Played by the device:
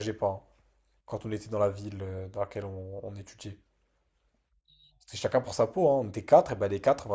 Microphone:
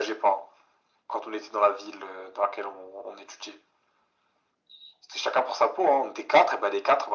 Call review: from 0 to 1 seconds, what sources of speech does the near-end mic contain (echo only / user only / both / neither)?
echo only